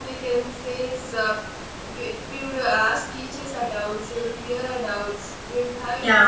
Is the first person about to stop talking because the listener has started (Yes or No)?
No